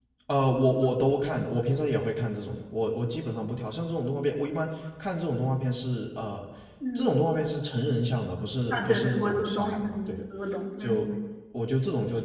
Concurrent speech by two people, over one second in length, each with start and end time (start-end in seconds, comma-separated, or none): 8.7-10.2